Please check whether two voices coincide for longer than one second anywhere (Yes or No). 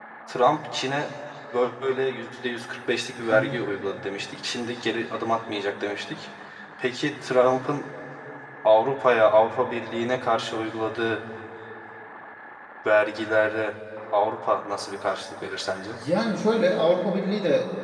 No